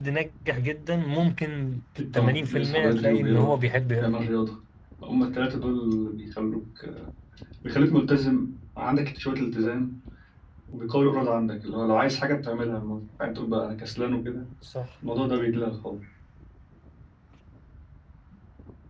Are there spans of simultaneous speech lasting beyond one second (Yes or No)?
Yes